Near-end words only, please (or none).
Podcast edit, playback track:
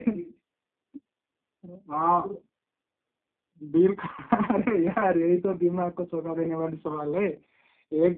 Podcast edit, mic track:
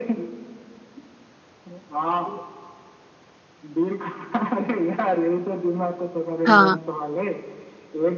हाँ